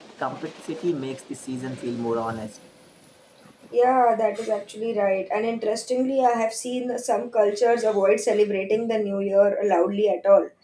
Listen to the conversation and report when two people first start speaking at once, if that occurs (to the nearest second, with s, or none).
none